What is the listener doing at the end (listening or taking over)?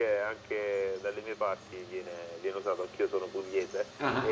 listening